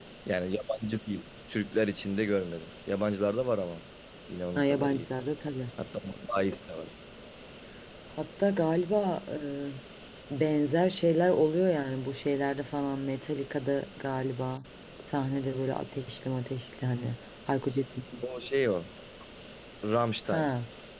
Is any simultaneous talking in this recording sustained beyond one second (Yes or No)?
No